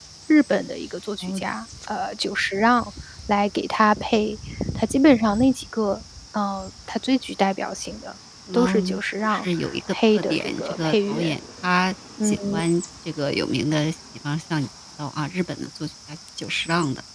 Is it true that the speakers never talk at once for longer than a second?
No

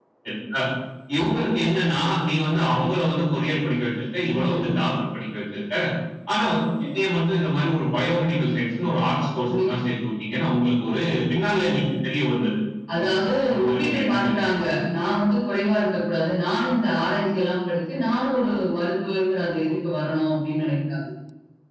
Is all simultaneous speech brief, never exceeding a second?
No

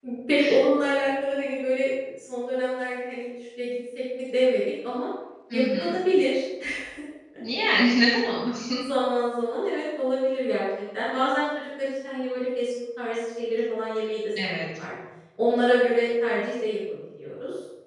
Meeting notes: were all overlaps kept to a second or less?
Yes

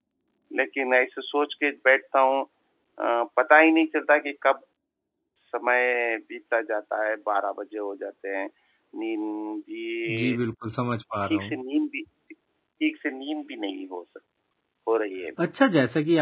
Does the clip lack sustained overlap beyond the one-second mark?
Yes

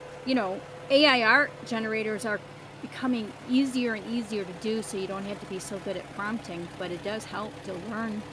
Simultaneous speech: No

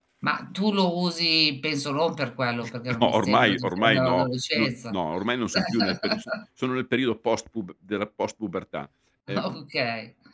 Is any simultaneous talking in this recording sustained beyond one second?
Yes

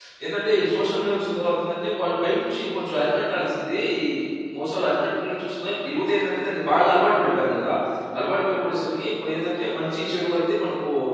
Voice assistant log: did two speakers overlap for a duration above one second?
No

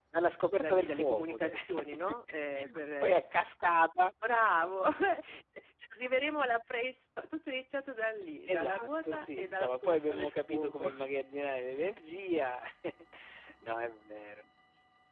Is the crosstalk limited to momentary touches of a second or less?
No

